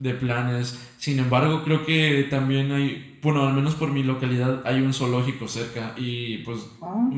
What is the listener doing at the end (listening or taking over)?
listening